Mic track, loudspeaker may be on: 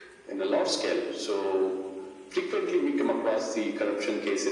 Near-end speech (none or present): none